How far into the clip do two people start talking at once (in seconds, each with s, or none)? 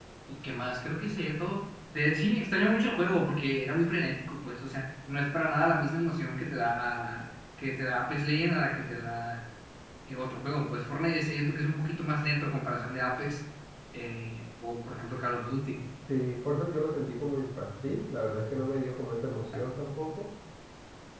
none